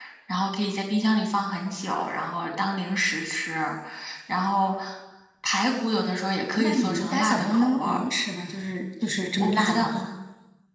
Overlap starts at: 6.6 s

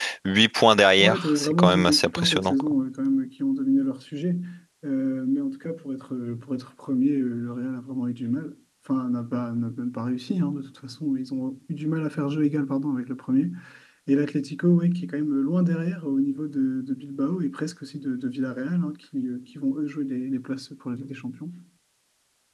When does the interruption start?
1.0 s

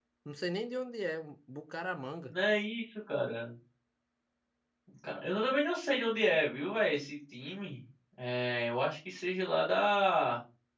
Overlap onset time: none

